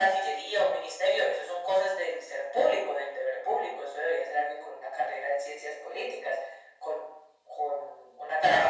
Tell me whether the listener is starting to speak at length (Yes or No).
No